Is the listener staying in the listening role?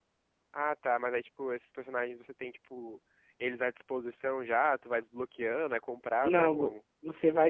No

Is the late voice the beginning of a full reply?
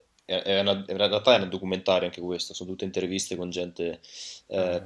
No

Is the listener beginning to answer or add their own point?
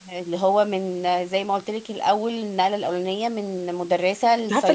Yes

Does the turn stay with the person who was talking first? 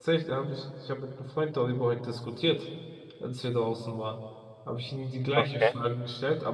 Yes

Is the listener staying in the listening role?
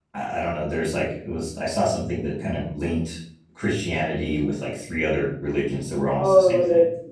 No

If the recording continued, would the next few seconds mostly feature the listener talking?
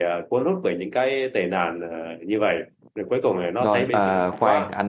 Yes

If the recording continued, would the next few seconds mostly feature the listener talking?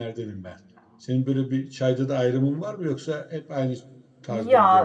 Yes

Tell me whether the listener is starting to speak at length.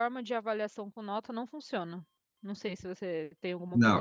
Yes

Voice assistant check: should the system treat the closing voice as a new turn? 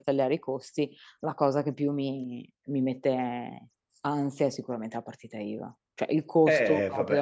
Yes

